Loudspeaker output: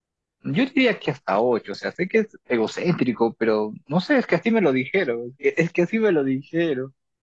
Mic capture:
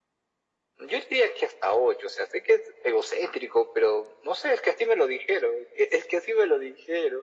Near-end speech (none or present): none